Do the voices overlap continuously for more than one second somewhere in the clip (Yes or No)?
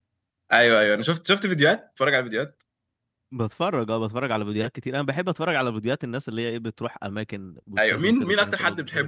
Yes